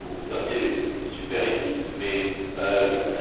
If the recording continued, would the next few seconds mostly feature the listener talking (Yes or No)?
No